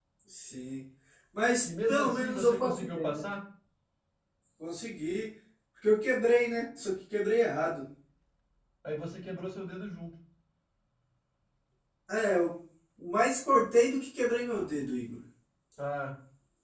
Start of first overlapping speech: 1.6 s

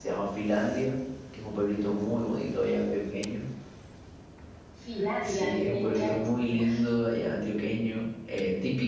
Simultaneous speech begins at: 5.2 s

